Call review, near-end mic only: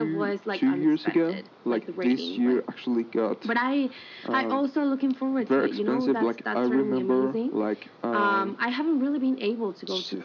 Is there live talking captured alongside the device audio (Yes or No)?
No